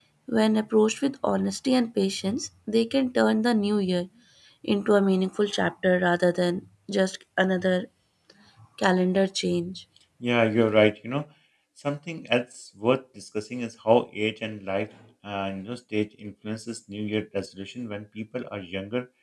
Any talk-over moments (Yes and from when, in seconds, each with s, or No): No